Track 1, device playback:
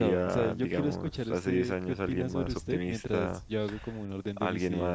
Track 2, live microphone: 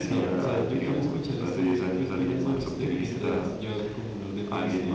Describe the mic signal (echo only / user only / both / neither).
echo only